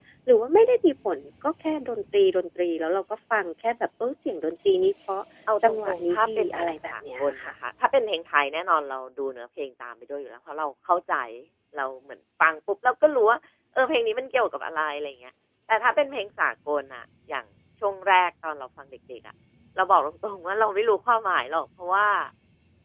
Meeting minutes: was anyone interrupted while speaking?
Yes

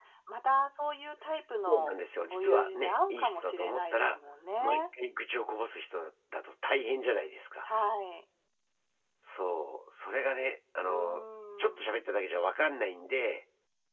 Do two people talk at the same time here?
Yes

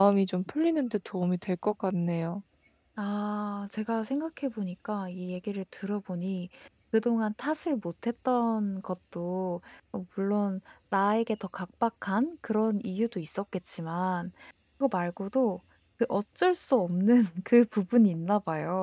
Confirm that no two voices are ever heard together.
Yes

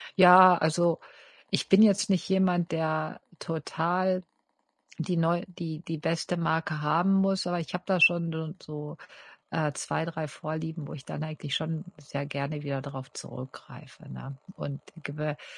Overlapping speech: No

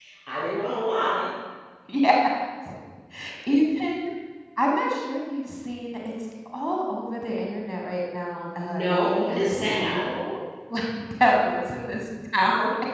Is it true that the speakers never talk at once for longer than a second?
No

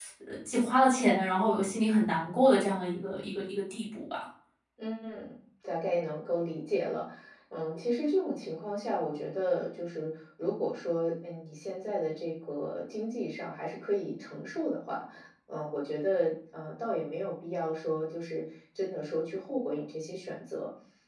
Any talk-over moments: No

